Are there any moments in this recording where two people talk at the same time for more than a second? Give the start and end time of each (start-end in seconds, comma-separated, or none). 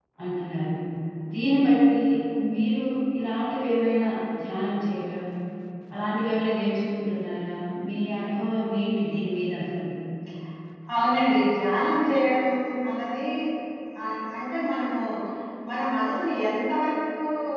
none